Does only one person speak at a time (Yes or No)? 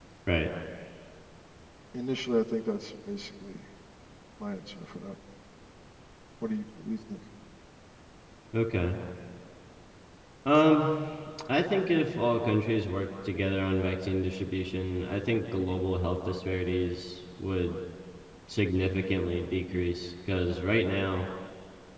Yes